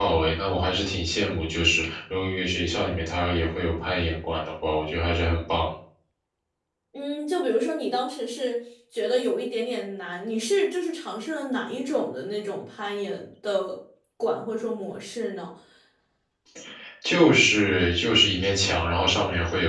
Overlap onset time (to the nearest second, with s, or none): none